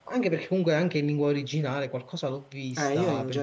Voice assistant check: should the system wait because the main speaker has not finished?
No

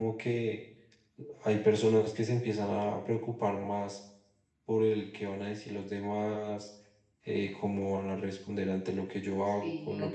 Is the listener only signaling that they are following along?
No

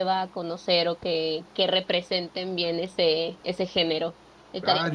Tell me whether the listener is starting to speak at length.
Yes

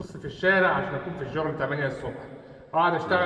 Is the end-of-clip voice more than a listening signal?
No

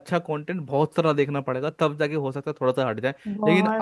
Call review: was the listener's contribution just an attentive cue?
Yes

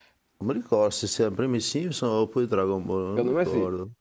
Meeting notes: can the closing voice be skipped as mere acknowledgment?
No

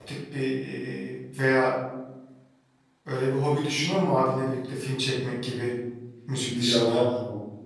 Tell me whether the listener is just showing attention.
No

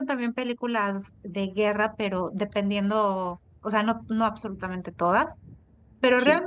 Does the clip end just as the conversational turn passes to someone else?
No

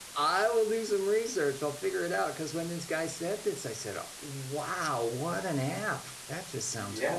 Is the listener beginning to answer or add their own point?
Yes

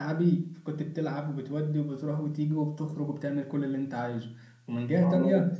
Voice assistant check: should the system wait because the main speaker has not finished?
Yes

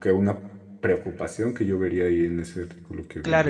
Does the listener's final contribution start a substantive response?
Yes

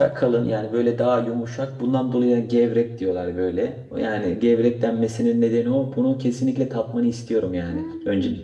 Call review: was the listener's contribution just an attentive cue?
No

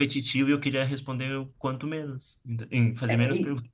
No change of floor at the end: No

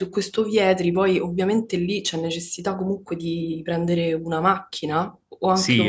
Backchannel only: No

